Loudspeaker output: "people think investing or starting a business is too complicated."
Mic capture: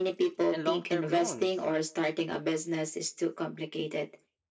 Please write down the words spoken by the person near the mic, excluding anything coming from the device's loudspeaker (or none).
and long term loans.